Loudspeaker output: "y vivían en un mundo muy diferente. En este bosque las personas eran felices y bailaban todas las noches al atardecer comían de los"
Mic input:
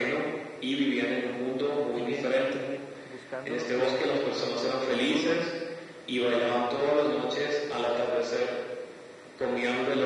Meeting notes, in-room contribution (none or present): present